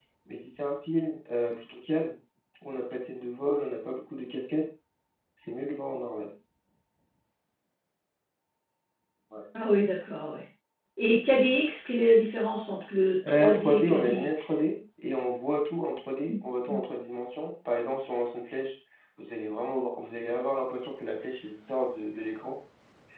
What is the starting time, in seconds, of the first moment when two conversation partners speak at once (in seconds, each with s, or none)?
13.2 s